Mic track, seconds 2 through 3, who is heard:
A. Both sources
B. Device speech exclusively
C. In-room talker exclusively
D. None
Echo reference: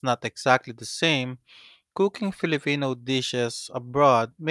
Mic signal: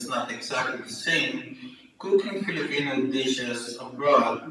B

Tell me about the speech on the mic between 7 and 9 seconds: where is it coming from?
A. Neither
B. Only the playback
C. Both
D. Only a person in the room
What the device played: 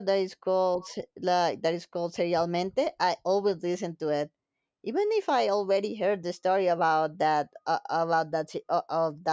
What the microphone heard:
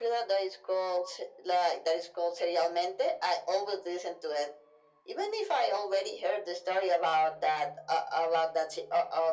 B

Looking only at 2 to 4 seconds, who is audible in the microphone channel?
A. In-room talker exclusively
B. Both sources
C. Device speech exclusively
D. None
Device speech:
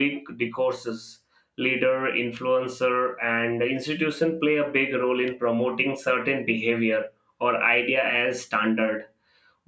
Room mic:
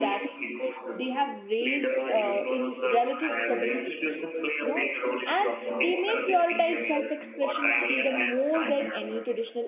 B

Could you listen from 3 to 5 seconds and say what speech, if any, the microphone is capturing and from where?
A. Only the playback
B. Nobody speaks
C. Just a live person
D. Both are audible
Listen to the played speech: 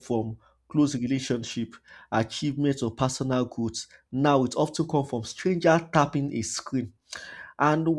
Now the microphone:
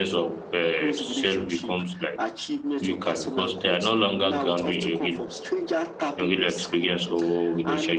D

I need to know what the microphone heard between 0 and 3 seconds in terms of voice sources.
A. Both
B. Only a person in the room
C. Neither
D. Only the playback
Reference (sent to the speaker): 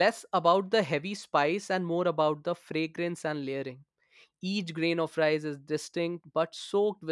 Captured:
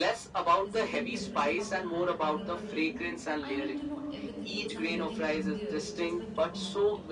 A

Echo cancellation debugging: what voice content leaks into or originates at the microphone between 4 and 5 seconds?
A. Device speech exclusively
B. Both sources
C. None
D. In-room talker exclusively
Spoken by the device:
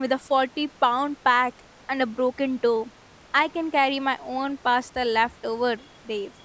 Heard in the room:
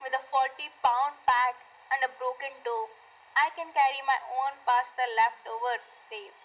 A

